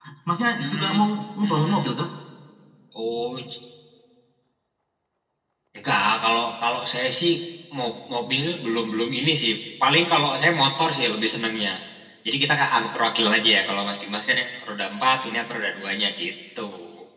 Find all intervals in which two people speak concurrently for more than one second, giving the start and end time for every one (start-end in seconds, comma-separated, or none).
none